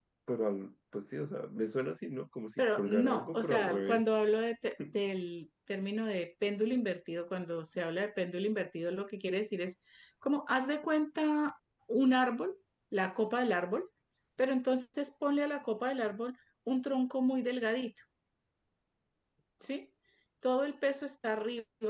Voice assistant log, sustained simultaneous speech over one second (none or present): present